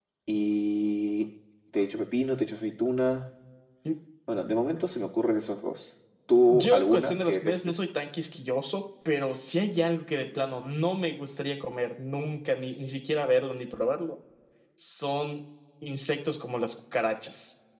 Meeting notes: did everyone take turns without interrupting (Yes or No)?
No